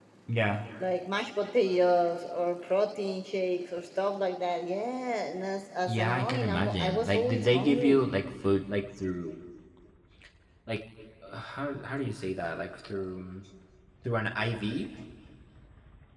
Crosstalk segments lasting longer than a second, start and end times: 5.9-8.0

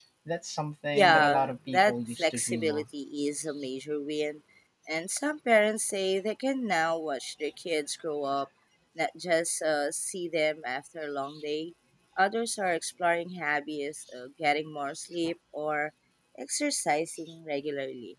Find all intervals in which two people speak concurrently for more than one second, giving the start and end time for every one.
0.9-2.9

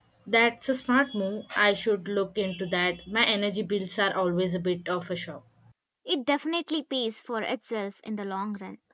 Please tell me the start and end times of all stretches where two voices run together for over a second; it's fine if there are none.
none

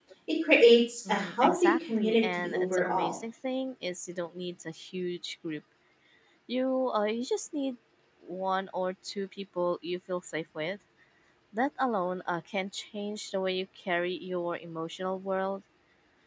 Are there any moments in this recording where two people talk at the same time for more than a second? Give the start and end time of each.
1.1-3.2

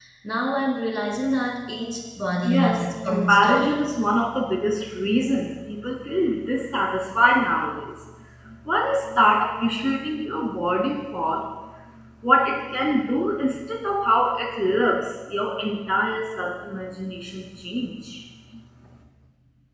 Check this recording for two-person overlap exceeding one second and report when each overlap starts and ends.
2.4-3.8

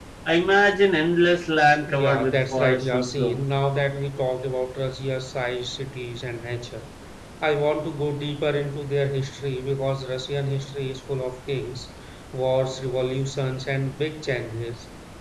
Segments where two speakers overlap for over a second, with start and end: 1.9-3.4

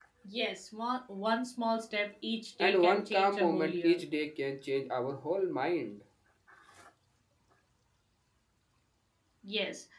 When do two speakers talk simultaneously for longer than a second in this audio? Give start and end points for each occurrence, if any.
2.6-4.0

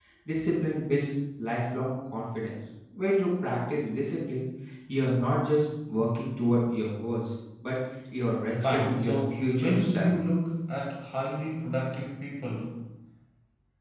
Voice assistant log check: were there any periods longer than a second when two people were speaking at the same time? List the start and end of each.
8.6-10.1

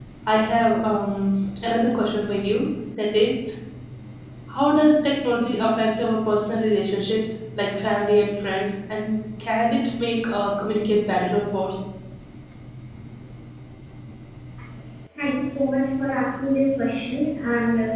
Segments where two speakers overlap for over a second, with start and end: none

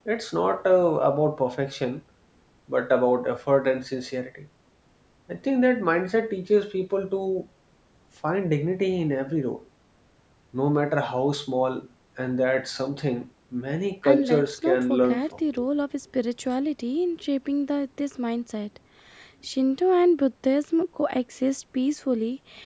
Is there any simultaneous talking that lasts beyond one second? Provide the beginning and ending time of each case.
14.0-15.2

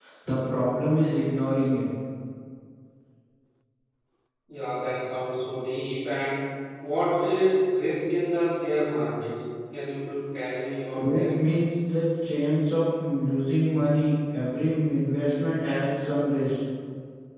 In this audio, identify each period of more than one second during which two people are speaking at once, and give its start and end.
none

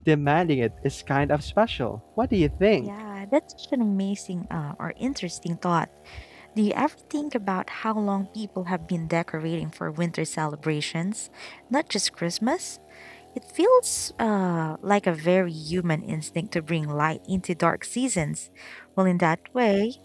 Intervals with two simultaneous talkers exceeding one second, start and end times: none

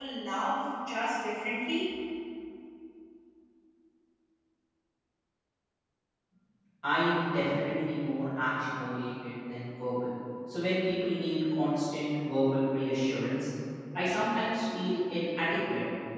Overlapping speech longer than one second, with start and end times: none

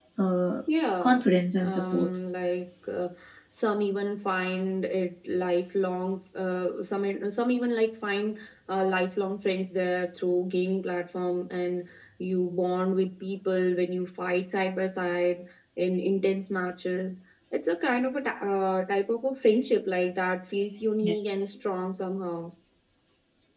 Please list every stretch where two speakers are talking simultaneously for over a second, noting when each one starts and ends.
none

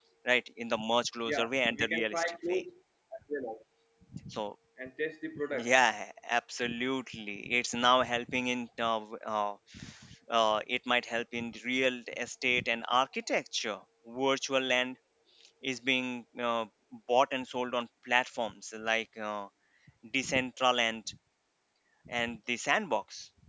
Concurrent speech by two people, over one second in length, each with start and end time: 1.2-2.6

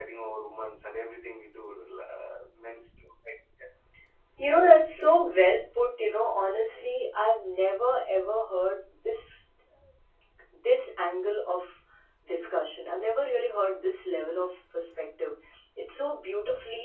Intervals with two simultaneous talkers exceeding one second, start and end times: none

